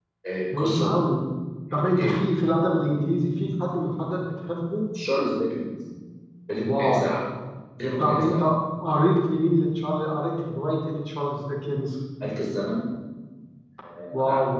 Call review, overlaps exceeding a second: none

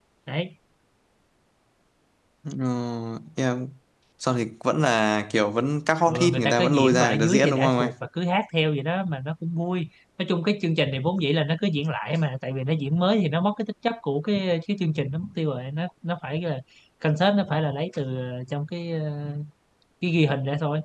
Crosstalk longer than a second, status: present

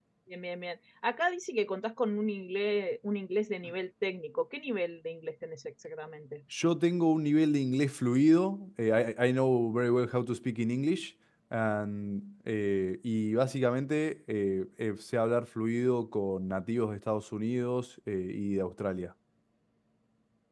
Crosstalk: none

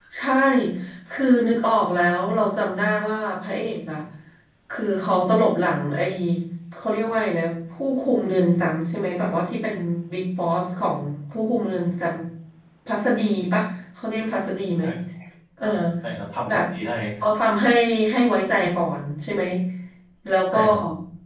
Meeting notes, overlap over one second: none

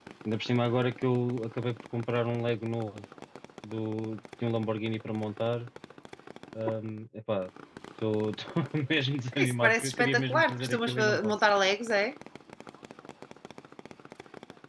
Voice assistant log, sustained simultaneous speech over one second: present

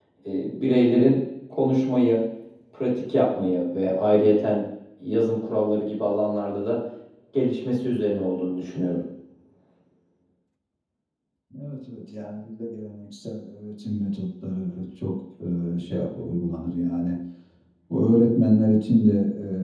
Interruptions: none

